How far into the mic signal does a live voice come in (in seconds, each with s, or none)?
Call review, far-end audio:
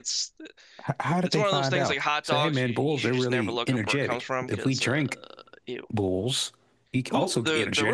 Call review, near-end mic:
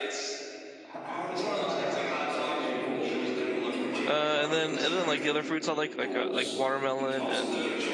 4.1 s